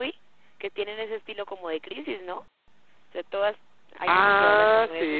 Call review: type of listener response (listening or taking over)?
taking over